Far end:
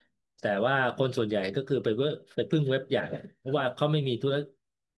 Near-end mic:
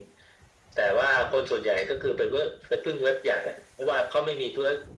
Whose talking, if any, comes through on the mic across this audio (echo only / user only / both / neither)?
echo only